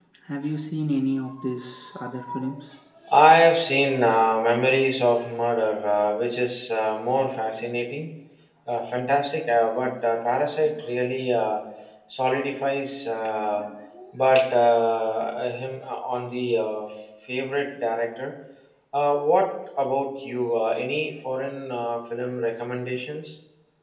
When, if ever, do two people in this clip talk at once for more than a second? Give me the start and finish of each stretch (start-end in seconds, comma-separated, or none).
none